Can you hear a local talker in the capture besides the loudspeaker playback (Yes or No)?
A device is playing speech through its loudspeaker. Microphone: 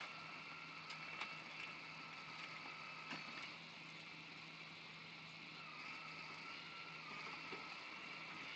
No